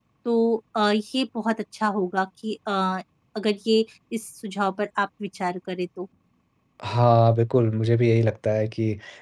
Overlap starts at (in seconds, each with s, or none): none